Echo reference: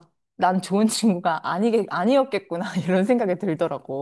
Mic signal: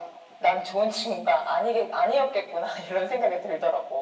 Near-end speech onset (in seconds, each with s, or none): none